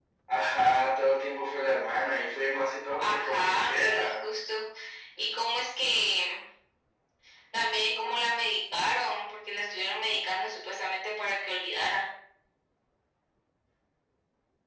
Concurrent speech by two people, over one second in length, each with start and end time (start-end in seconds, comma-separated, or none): 3.0-4.2